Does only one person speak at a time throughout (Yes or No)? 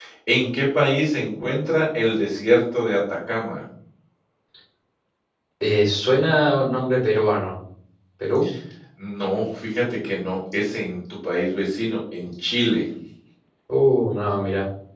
Yes